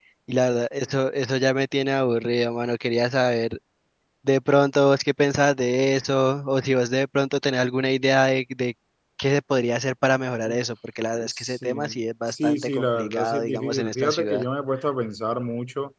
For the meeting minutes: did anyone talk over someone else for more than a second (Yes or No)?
Yes